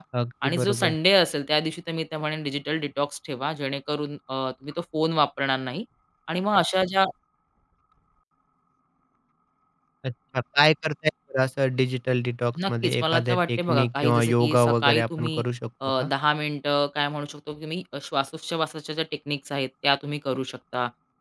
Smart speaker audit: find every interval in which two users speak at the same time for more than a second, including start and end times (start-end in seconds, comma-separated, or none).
12.7-15.4